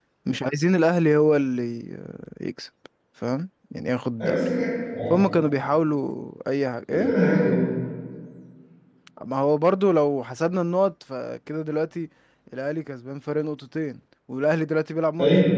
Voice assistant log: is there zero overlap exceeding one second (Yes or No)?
Yes